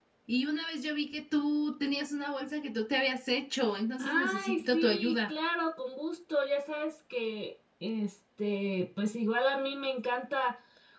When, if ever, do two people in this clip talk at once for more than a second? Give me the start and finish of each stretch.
4.0-5.3

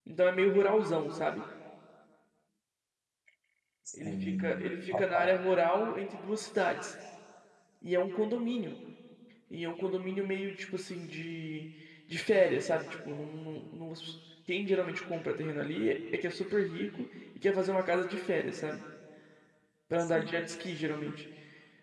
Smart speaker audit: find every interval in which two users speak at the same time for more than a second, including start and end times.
3.9-5.3

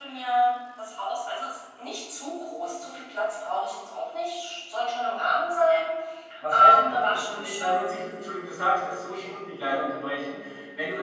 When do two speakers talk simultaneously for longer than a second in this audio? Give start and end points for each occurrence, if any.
6.5-7.8

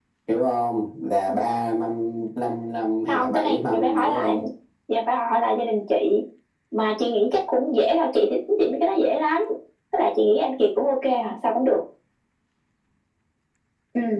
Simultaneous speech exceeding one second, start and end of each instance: 3.1-4.3

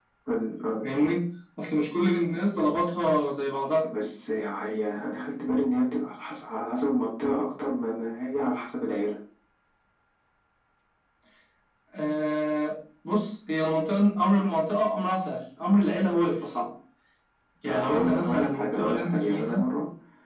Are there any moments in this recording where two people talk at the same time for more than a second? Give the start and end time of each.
17.6-19.6

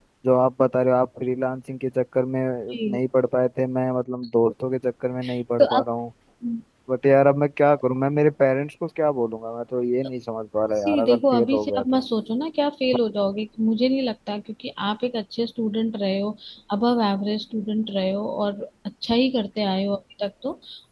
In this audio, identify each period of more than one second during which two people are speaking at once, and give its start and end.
10.8-12.0

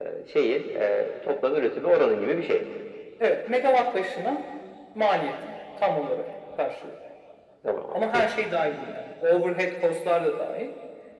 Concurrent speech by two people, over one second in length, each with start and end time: none

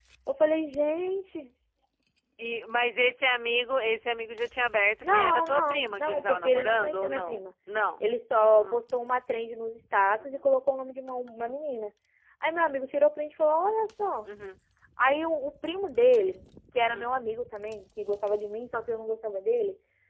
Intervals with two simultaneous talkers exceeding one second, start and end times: 5.0-7.5

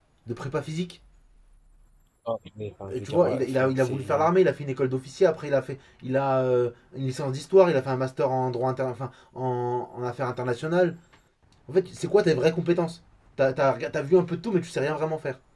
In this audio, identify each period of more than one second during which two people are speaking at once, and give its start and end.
2.9-4.3

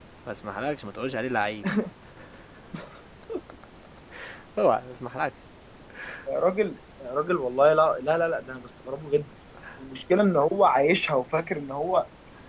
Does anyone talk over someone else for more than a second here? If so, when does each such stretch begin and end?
none

